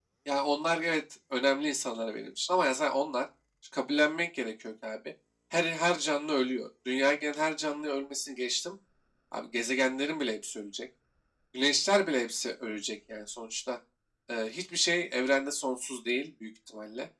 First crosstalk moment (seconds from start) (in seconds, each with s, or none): none